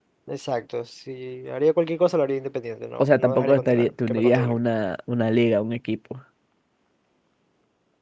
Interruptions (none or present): present